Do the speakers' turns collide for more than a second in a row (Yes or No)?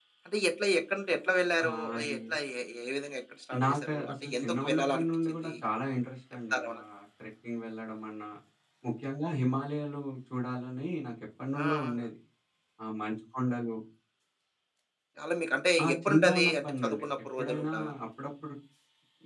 Yes